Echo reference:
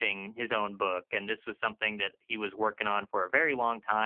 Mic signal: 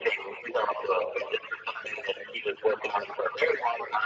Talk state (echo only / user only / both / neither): echo only